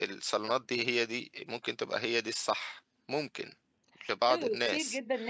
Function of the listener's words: taking over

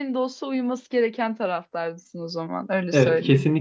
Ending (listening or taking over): taking over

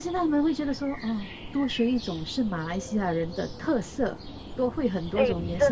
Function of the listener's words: taking over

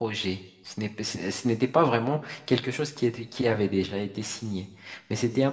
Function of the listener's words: listening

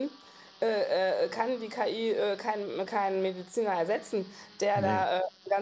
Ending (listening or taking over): listening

